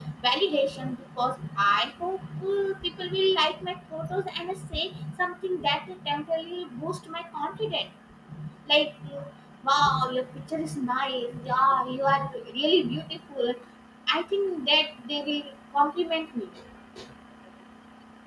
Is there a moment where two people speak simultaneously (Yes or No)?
No